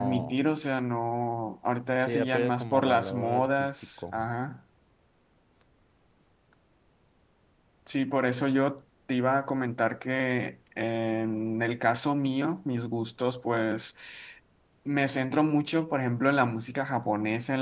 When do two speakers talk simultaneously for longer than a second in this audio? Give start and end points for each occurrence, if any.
2.0-4.1

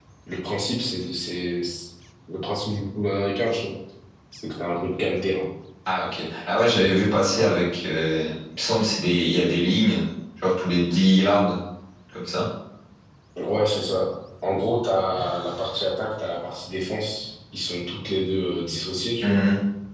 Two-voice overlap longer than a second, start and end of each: none

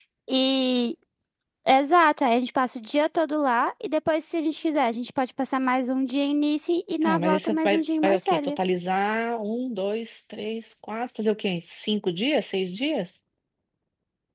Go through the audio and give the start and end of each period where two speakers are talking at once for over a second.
7.0-8.6

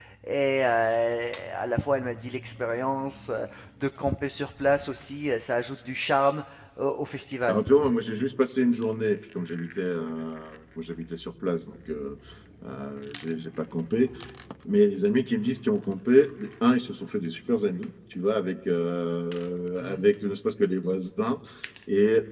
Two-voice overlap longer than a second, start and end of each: none

